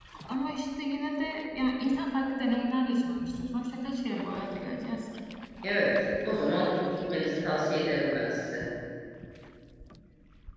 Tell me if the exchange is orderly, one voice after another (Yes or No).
Yes